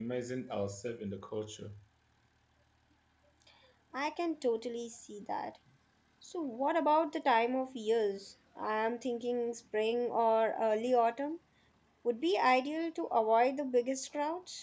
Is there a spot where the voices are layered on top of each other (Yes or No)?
No